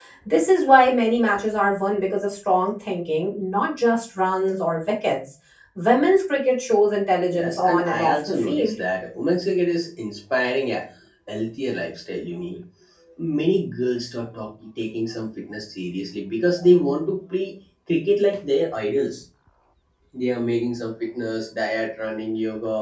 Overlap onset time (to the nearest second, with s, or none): 7 s